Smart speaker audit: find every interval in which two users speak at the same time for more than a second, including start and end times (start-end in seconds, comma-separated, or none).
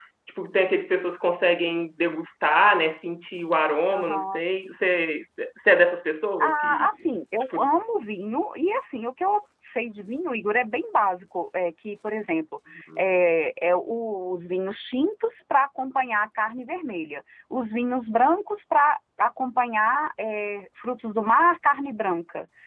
none